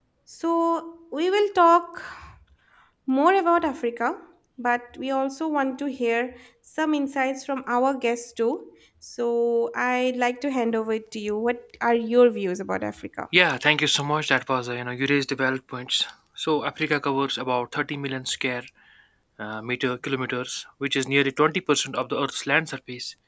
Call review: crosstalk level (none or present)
none